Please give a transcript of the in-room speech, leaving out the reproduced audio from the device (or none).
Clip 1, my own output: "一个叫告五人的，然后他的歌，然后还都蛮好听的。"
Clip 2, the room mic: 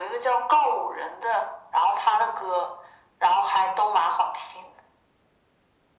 none